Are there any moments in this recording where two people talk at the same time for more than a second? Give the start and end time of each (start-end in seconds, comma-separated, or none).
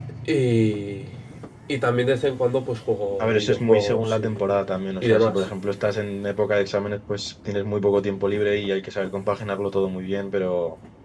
3.2-4.6